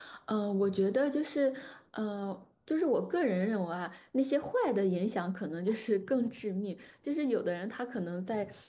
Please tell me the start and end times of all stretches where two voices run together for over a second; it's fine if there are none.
none

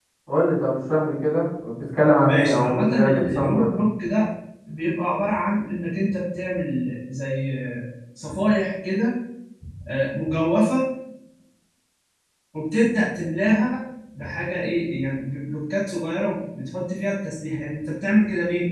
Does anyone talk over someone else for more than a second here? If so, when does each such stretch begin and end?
2.2-3.7

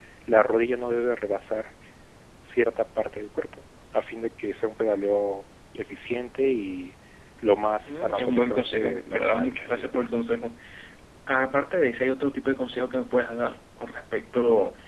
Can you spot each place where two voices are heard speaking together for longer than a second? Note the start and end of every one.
7.8-10.2

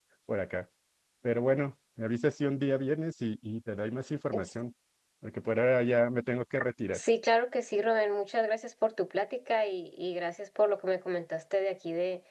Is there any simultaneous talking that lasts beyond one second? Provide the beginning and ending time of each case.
none

